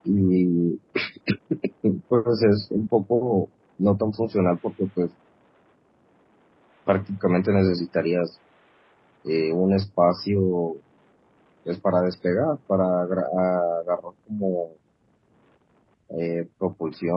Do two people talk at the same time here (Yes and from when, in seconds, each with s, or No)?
No